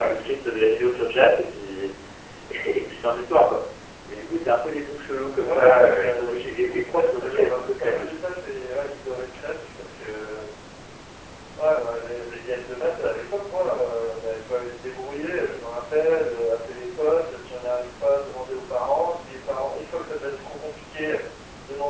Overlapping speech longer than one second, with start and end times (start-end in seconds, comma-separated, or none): 5.4-8.1